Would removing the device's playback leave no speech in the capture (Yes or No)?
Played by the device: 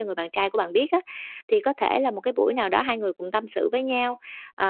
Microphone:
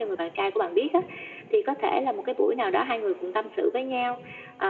Yes